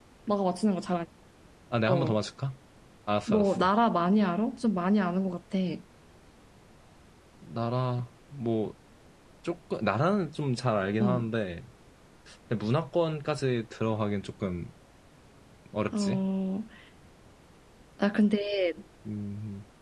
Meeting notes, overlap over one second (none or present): none